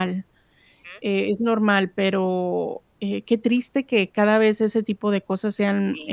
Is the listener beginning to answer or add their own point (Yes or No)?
Yes